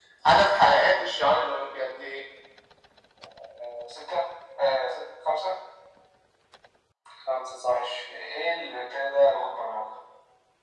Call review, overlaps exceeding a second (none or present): none